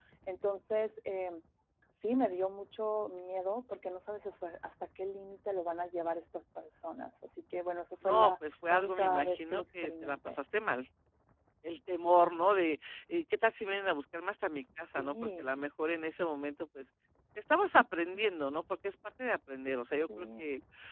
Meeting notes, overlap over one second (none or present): present